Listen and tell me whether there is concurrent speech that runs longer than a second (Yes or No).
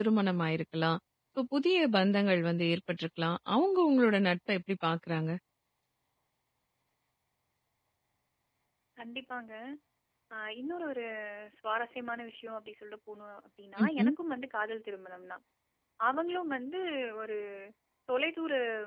No